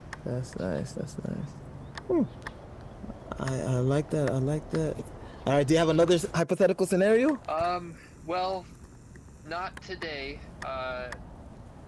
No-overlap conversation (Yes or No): Yes